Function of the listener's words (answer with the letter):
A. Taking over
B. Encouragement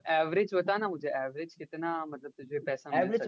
A